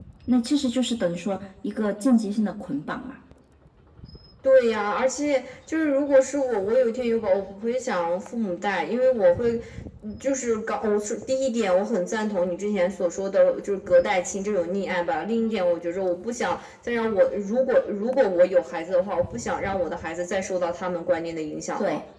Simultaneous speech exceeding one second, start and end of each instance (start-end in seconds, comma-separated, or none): none